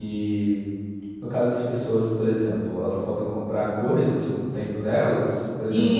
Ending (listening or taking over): taking over